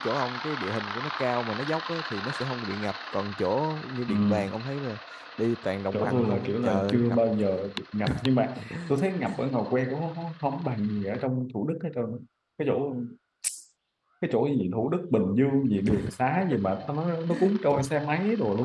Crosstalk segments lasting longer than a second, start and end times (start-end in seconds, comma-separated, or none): 5.9-7.2